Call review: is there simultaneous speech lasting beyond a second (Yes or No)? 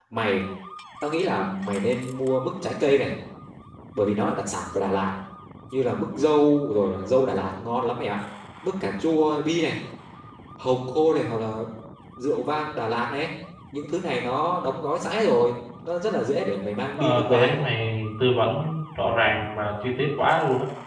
No